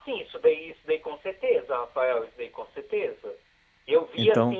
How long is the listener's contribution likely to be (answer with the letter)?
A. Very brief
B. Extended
A